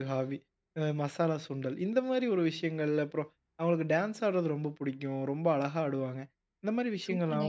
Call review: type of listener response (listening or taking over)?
taking over